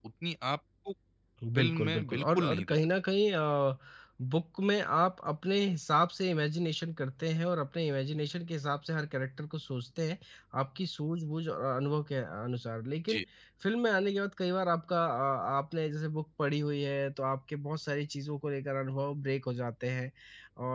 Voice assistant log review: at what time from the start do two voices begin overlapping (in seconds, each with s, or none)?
1.6 s